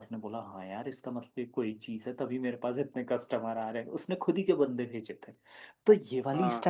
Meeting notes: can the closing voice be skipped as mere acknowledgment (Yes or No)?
Yes